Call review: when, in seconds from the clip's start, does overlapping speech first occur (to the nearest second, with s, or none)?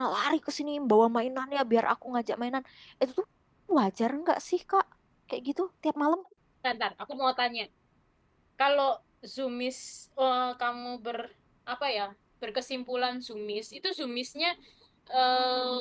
none